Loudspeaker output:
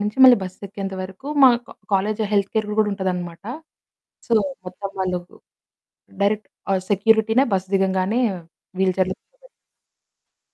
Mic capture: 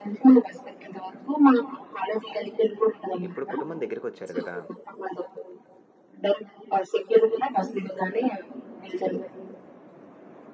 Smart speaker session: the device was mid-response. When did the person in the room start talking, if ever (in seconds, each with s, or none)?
3.3 s